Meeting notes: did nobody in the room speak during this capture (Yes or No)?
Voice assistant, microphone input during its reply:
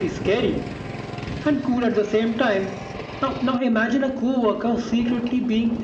Yes